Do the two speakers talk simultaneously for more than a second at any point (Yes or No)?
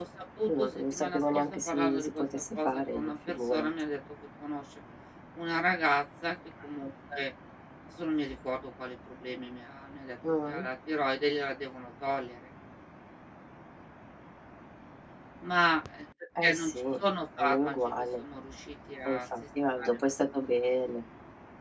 Yes